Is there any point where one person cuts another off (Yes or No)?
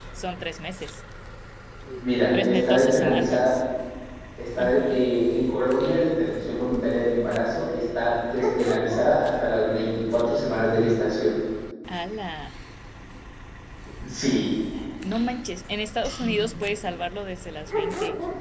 Yes